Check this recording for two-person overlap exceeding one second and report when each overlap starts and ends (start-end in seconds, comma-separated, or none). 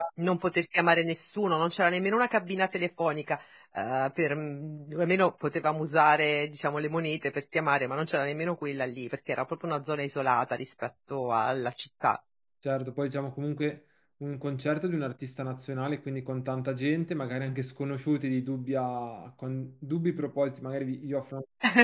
none